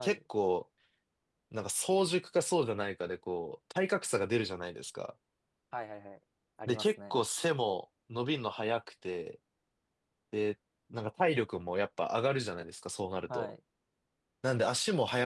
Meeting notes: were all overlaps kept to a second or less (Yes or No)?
Yes